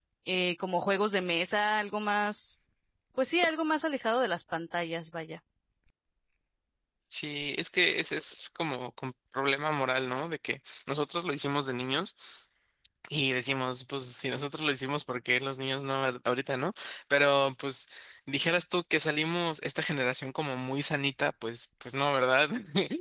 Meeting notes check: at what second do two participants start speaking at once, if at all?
none

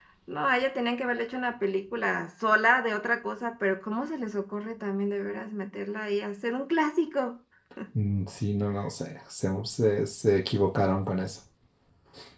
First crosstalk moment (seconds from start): none

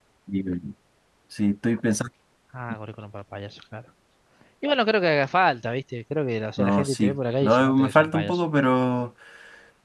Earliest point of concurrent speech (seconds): 7 s

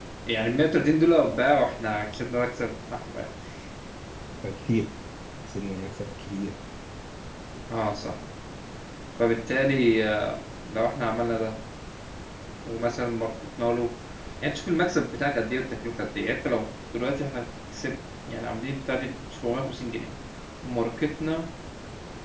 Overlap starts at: none

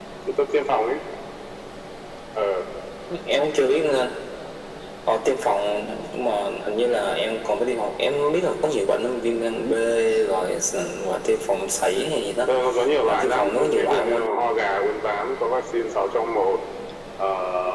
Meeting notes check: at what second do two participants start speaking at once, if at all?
13 s

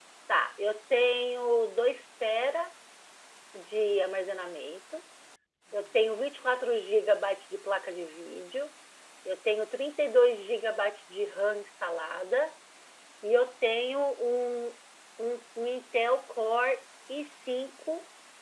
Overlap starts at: none

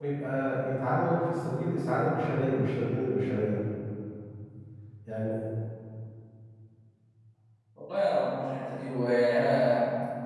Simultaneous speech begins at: none

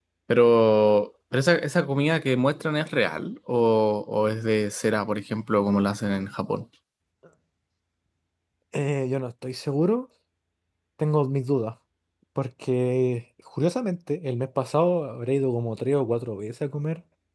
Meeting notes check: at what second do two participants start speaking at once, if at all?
none

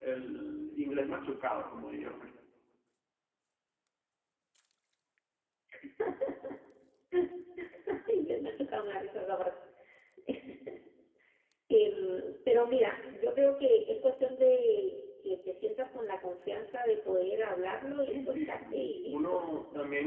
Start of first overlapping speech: 18 s

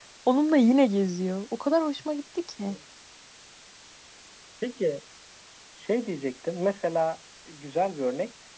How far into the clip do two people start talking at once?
none

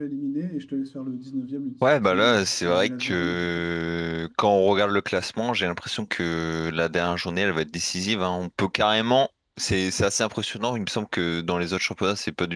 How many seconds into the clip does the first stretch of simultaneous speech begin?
2 s

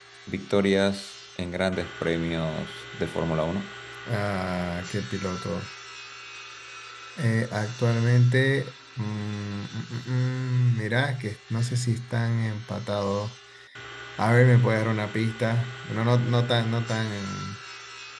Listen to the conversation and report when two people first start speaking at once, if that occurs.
none

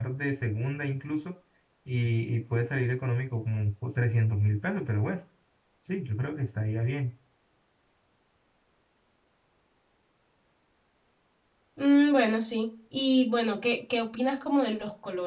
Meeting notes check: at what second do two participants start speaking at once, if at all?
none

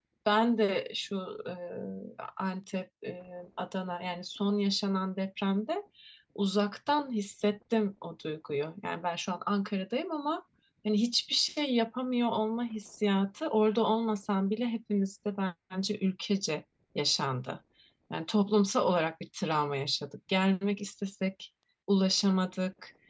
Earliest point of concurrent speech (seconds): none

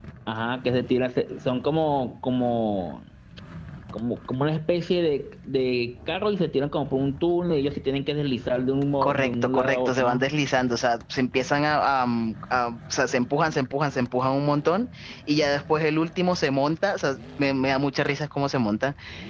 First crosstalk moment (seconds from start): 9 s

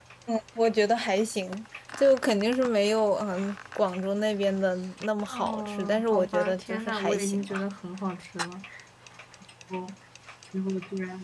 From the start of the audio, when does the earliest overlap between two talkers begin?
5 s

